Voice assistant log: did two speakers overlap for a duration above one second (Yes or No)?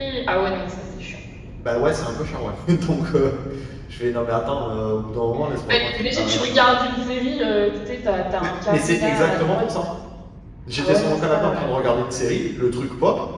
Yes